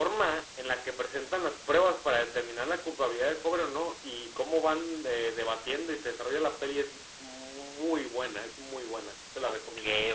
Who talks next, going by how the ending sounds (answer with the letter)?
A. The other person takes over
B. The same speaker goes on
A